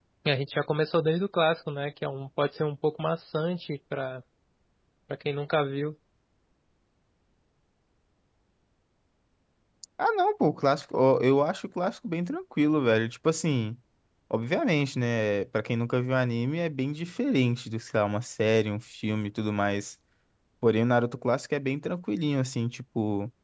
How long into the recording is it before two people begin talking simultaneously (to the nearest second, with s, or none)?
none